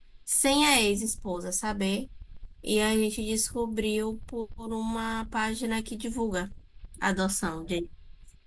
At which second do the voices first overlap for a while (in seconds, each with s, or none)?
none